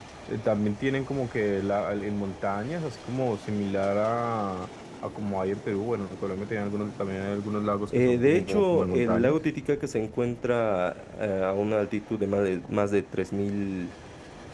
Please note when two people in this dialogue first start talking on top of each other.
7.9 s

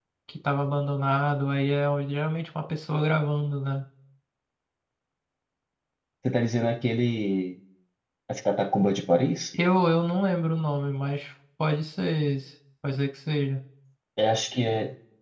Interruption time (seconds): none

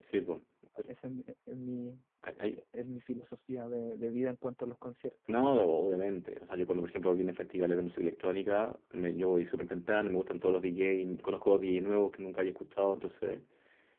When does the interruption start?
none

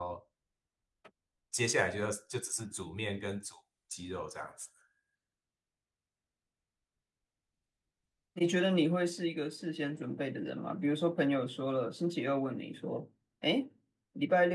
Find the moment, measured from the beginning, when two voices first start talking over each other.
none

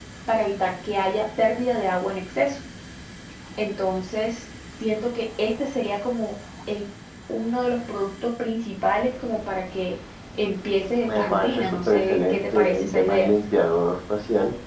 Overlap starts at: 11.0 s

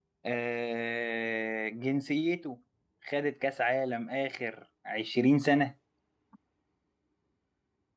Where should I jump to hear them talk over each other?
none

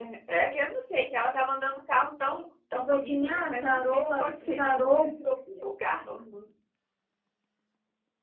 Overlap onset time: 2.9 s

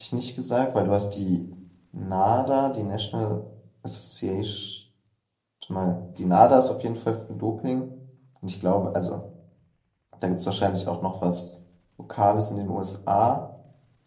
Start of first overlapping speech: none

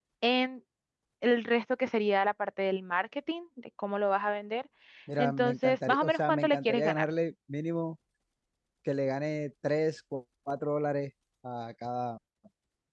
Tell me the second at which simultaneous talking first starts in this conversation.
5.2 s

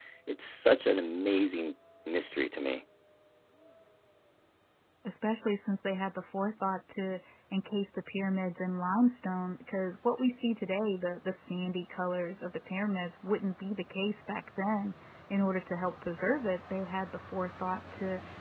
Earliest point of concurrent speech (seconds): none

